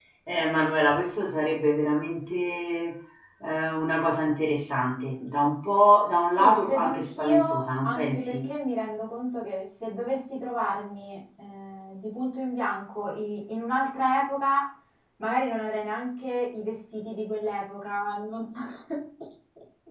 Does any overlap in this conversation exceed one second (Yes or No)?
Yes